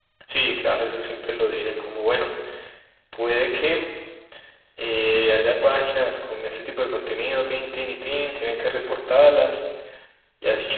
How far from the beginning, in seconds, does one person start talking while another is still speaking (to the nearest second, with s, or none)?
none